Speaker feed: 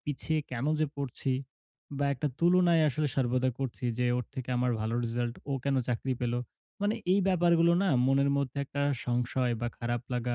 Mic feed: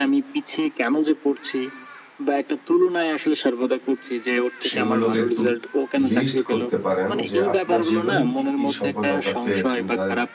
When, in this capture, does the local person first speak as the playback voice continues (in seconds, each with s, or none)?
4.7 s